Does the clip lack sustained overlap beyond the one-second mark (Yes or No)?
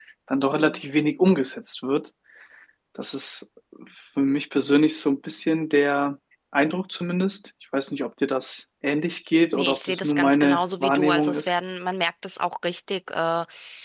No